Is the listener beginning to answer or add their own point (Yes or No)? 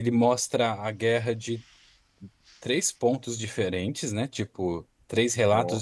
No